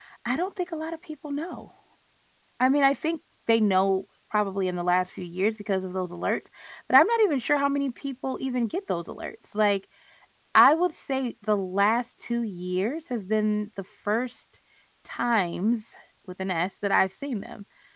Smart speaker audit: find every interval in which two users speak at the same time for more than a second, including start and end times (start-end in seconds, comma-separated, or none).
none